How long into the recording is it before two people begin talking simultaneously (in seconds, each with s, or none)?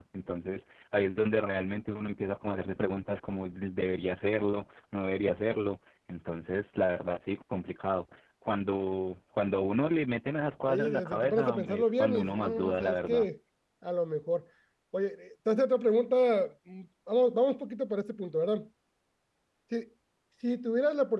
10.7 s